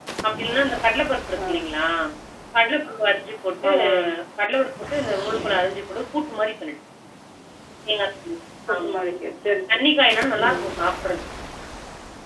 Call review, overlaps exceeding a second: none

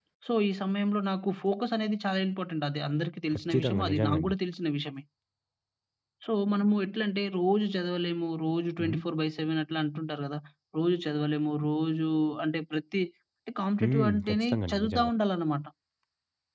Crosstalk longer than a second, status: present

